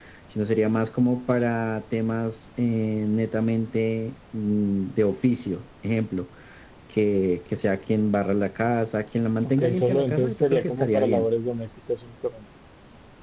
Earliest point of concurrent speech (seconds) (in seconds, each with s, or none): 9.4 s